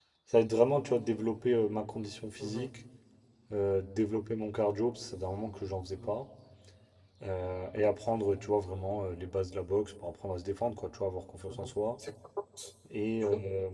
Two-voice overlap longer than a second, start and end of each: none

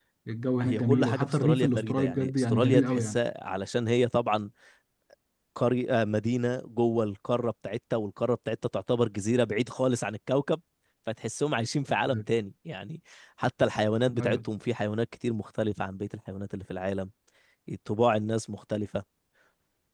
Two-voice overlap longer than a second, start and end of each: 0.6-3.2

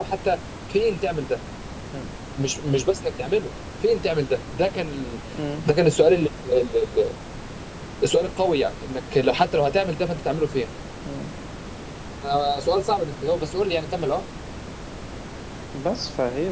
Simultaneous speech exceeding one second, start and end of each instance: none

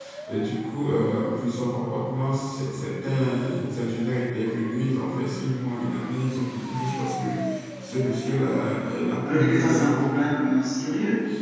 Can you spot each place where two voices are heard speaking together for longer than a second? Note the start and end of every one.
9.2-10.4

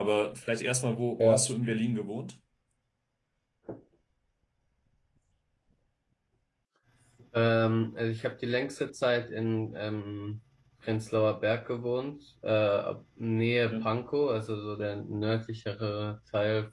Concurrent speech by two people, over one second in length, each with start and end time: none

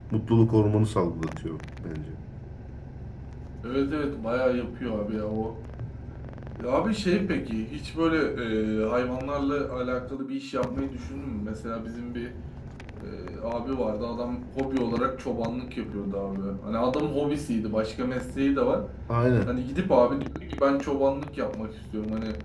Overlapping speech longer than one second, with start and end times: none

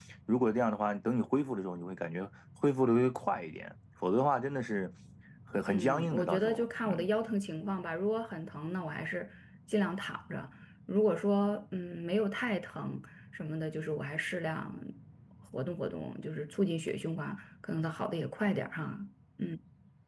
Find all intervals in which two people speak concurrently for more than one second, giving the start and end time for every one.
5.7-7.0

